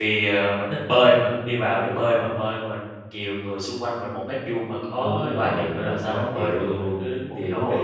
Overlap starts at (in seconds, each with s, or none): 5.0 s